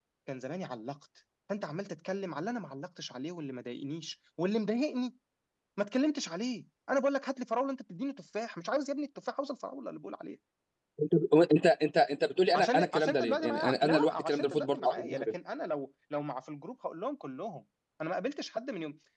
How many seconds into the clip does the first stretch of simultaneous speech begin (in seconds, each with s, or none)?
12.5 s